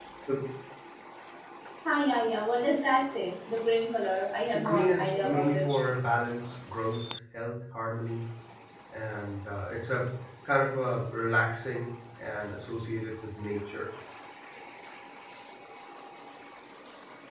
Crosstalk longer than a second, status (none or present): present